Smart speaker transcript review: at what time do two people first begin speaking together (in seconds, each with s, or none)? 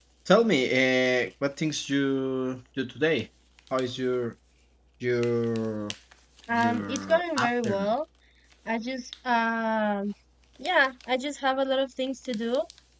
6.5 s